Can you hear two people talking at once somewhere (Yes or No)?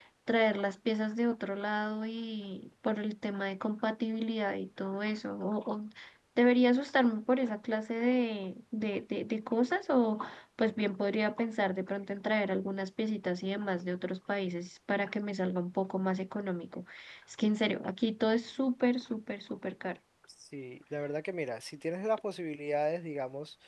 No